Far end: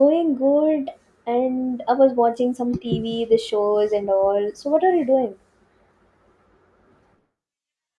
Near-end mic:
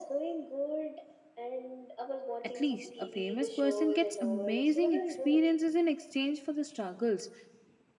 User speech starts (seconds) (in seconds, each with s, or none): 2.4 s